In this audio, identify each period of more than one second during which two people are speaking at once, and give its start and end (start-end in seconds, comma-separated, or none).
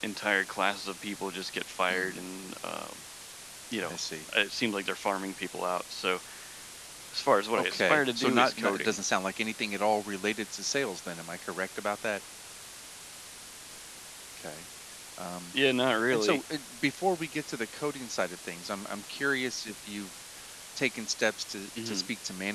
7.5-9.0